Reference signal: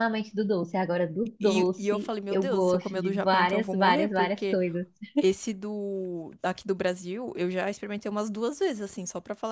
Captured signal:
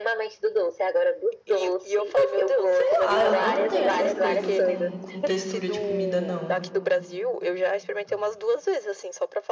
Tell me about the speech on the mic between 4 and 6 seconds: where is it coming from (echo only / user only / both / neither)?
both